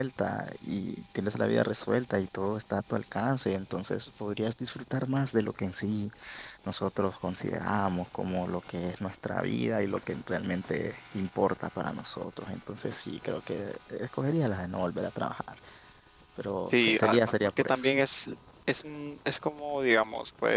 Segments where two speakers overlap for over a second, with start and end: 16.7-17.9

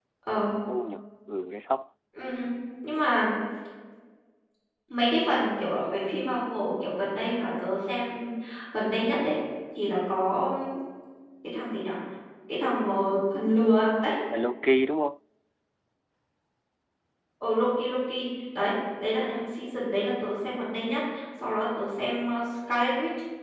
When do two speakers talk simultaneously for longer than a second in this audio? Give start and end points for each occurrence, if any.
none

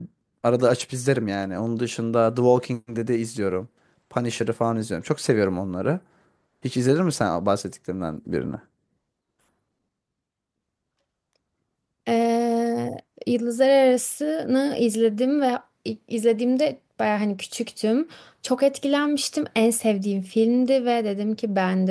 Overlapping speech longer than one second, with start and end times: none

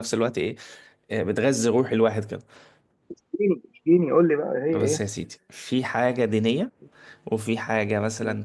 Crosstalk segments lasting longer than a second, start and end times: none

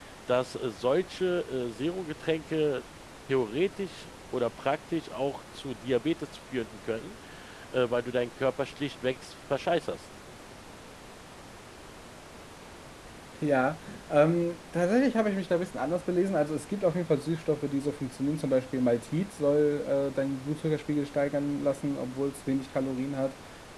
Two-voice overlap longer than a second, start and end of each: none

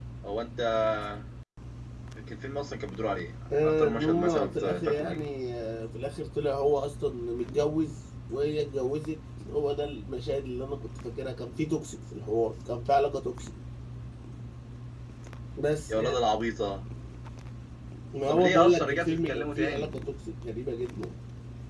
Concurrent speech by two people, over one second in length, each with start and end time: 3.6-5.2, 18.3-19.9

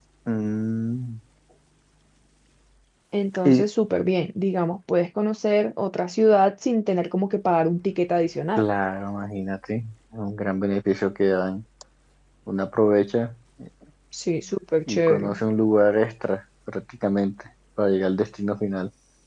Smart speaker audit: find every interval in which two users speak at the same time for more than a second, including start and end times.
none

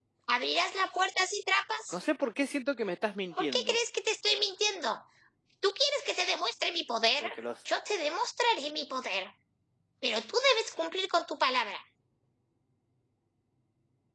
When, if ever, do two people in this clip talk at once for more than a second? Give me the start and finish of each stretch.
none

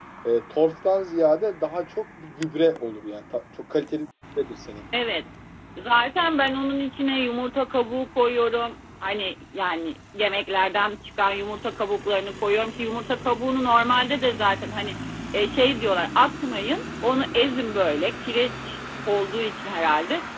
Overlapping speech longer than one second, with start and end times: none

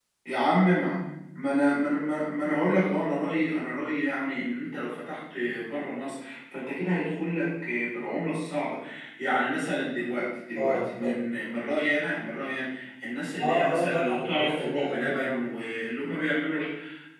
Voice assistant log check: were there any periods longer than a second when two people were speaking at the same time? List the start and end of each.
13.4-15.4

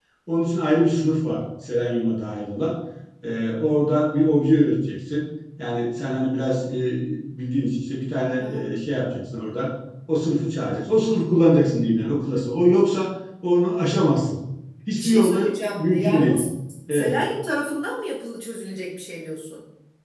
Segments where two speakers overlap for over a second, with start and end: 15.0-16.4

